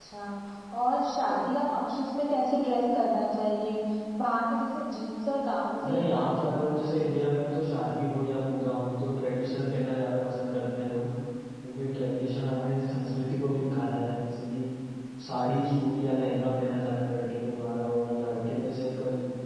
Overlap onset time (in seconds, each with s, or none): 5.8 s